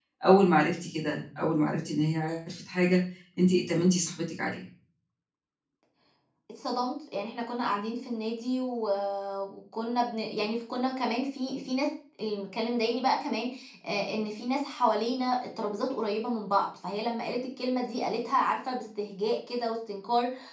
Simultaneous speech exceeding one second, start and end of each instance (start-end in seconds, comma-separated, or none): none